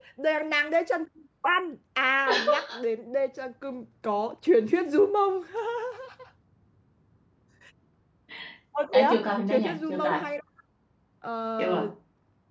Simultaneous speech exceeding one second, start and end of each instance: 8.9-10.2

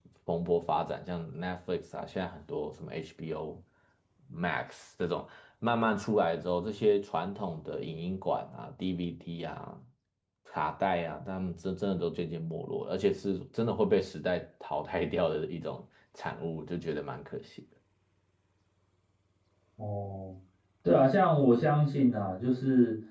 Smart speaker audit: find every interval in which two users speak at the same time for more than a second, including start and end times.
none

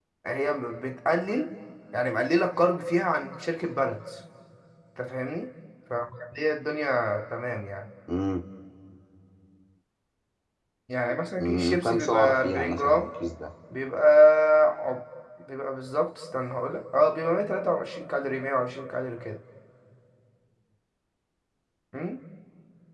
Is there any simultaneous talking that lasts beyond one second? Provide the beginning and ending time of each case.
11.4-13.1

